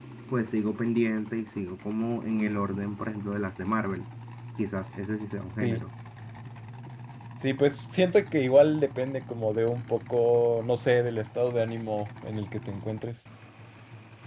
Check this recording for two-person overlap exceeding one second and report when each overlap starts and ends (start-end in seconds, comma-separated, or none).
none